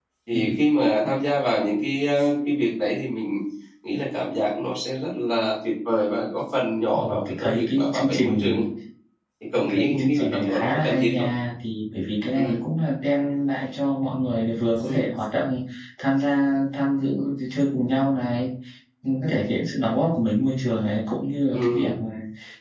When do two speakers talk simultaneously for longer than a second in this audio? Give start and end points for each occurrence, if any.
6.9-8.5, 9.6-11.3

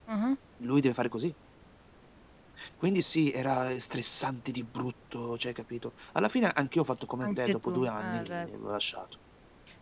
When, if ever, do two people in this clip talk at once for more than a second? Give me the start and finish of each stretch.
7.2-8.5

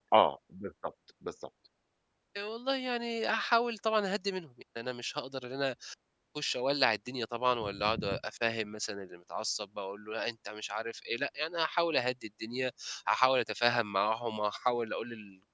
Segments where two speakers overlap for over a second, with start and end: none

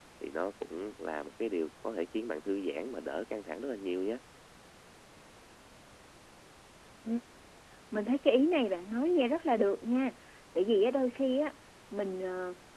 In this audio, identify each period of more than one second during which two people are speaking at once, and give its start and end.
none

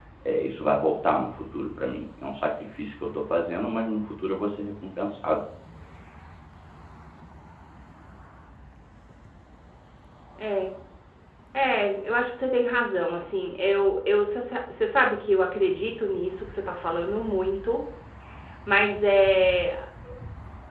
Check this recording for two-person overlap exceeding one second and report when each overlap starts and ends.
none

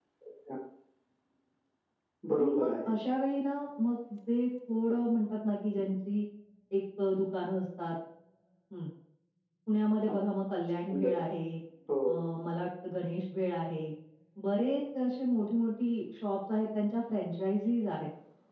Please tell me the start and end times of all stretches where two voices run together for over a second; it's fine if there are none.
none

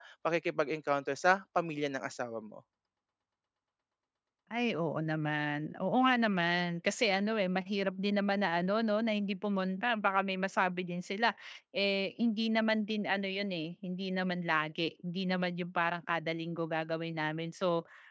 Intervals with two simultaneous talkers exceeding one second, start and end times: none

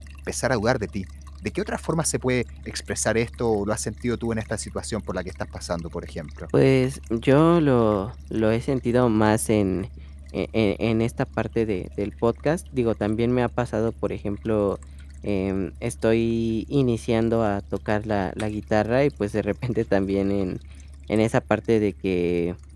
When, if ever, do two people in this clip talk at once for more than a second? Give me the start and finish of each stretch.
none

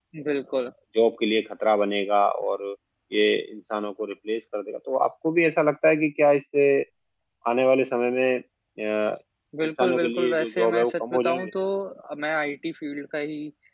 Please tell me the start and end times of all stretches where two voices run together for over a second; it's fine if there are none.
9.8-11.5

